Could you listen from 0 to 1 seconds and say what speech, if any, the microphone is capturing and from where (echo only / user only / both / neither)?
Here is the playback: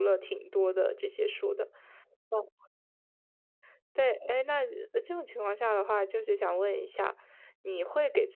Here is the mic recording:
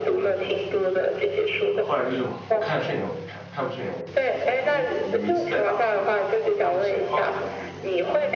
both